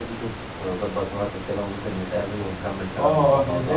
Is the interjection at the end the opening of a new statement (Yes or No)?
Yes